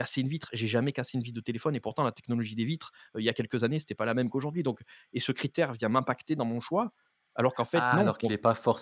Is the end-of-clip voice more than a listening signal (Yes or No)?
Yes